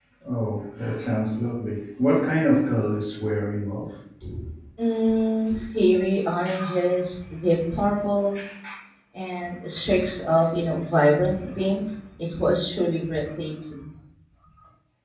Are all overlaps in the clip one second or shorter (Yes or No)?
Yes